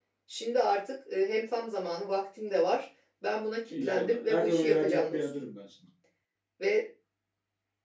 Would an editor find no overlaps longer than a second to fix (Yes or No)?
No